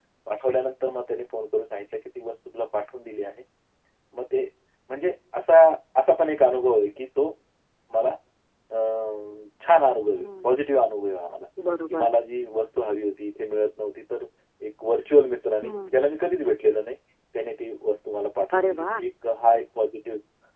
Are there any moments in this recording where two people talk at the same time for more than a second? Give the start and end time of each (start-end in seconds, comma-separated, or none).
none